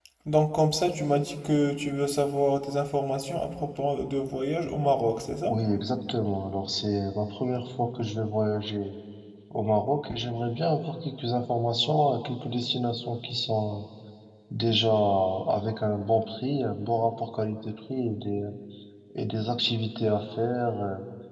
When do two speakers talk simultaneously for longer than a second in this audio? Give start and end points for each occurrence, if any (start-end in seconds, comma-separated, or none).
none